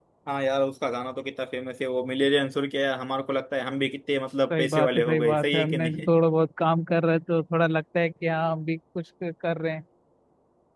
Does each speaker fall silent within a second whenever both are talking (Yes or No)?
No